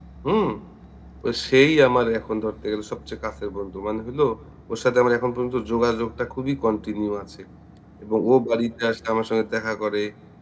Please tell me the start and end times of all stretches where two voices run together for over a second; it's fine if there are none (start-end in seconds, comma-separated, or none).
none